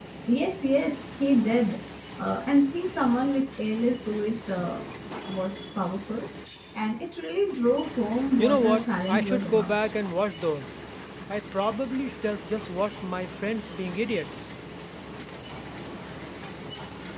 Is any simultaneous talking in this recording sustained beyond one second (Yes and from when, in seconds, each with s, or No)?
Yes, from 8.4 s